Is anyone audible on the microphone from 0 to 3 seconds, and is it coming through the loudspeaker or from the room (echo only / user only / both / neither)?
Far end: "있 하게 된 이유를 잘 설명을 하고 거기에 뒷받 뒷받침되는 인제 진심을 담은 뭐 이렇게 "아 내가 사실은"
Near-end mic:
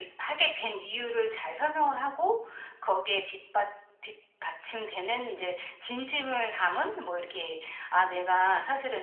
echo only